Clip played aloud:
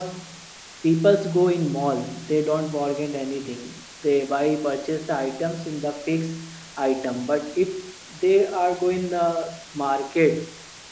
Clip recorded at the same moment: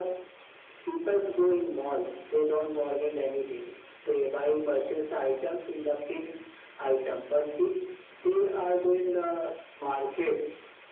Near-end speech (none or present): none